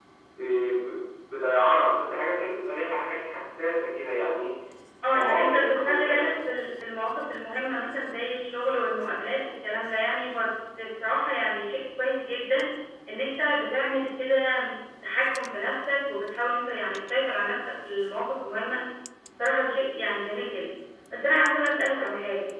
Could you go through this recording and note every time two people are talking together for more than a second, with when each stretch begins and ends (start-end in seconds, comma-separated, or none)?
5.1-6.3